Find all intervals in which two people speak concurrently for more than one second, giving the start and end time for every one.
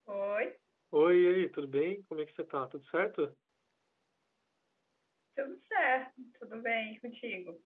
none

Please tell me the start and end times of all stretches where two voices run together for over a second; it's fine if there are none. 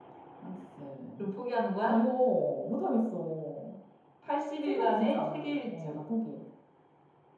4.6-6.0

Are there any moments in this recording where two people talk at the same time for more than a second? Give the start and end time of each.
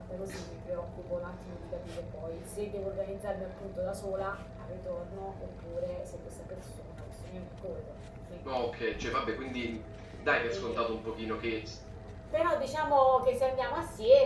none

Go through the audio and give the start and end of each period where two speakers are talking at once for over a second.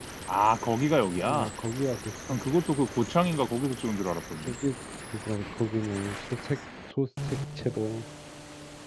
none

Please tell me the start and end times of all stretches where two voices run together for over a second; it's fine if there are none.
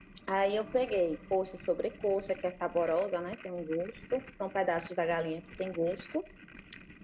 none

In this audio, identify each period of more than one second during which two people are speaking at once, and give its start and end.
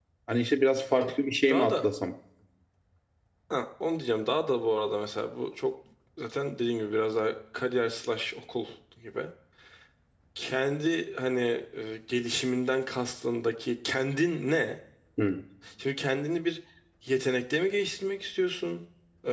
none

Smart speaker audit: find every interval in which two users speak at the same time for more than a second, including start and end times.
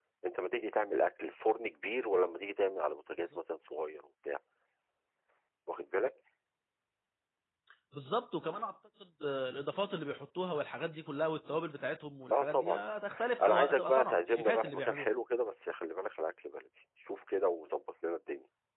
13.4-15.1

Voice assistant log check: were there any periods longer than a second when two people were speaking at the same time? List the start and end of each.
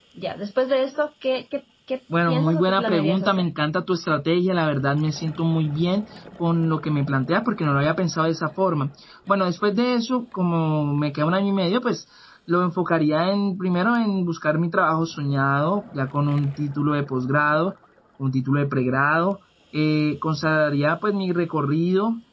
2.3-3.5

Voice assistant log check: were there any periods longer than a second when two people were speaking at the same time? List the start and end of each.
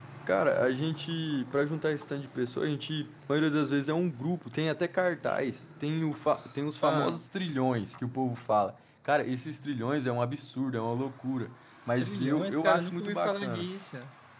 12.0-13.7

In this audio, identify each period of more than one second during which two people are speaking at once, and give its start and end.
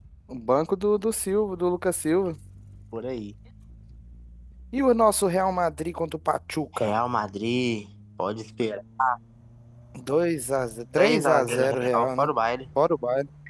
11.0-12.3

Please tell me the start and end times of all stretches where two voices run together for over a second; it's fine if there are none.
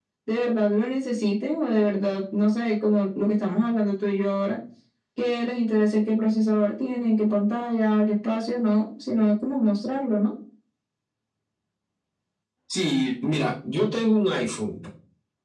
none

